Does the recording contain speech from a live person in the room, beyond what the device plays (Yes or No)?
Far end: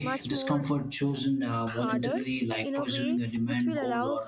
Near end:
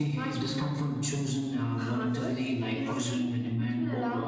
No